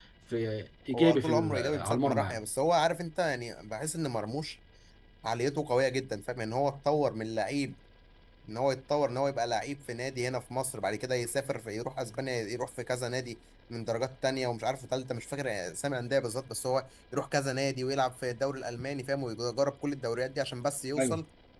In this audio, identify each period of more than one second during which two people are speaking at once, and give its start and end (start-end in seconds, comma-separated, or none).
0.9-2.4